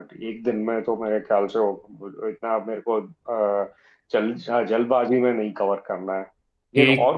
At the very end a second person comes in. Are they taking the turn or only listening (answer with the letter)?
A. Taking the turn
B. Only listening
B